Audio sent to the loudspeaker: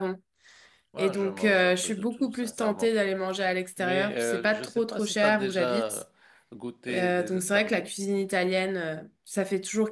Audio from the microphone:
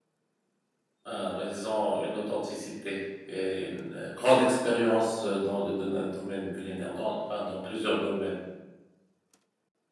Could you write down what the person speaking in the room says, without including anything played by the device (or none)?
euh, mais ils ont une authenticité et une euh, grande expérience euh, dans le dona- domaine culinaire, dans, enfin, dans plusieurs domaines.